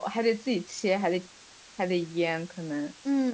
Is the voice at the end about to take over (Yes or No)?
Yes